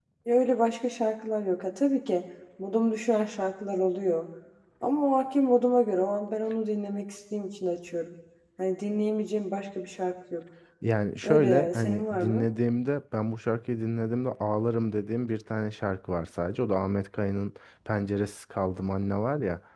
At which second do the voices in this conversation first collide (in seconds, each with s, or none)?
11.2 s